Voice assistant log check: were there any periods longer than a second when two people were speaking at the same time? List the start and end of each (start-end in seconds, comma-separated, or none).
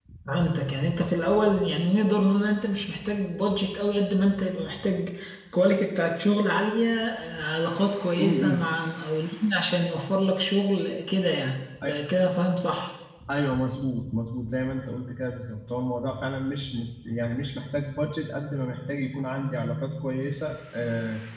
none